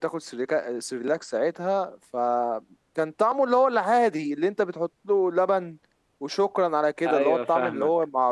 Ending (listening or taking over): listening